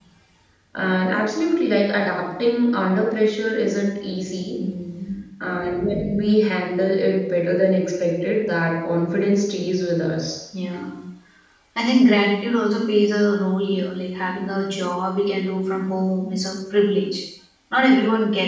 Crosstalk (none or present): none